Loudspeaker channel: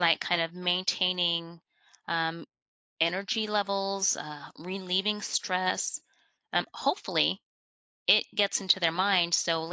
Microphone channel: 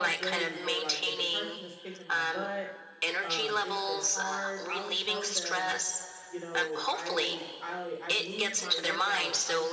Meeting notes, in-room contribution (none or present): present